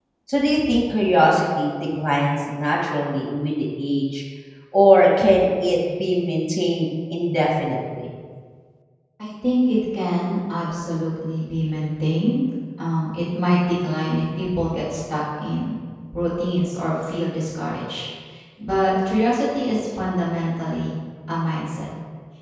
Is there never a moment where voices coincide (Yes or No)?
Yes